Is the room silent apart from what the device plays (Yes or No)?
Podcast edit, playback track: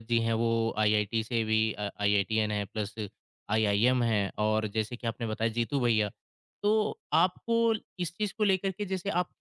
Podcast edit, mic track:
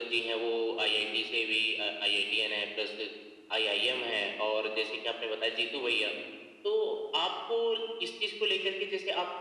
Yes